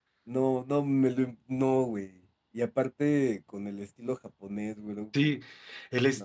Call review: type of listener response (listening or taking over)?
taking over